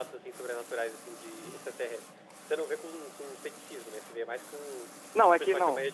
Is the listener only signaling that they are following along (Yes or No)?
No